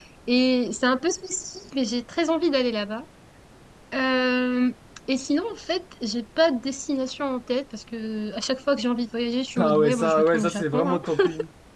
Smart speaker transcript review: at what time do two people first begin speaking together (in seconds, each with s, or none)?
9.6 s